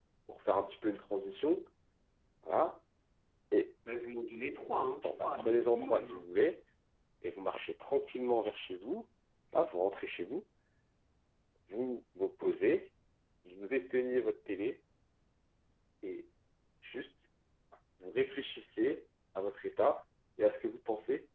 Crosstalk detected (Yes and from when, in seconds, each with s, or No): Yes, from 5.0 s